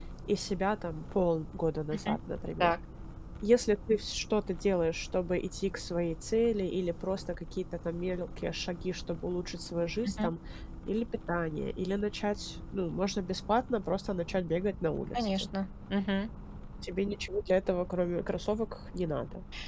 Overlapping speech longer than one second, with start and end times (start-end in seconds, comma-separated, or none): none